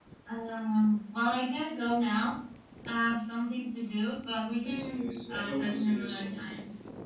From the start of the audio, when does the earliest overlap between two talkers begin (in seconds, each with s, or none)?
4.6 s